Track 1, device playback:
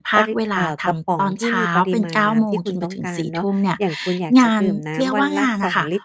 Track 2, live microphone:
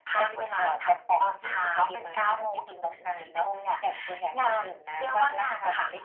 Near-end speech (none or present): none